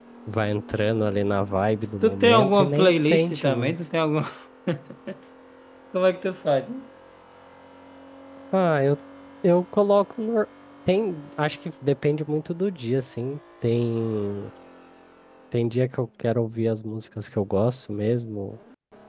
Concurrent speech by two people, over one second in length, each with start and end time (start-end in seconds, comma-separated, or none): 2.0-3.7